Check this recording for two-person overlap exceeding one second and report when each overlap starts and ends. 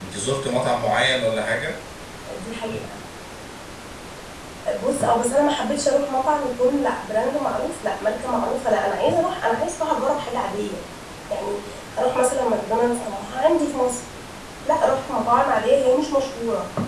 none

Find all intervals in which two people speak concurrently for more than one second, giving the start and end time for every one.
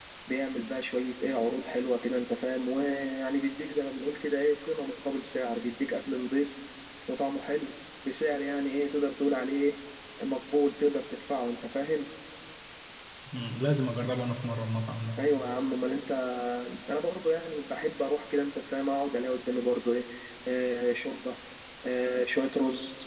none

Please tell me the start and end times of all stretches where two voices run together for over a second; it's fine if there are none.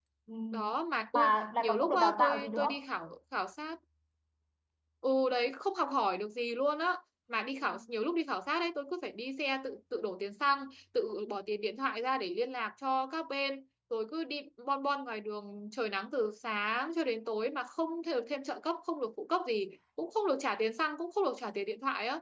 1.1-2.8

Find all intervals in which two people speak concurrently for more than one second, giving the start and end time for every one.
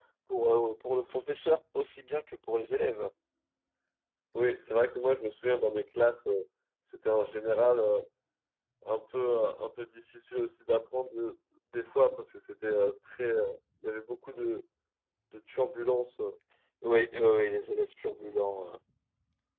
none

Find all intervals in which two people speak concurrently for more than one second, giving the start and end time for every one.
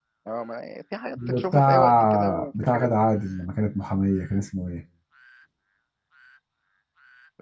1.2-2.9

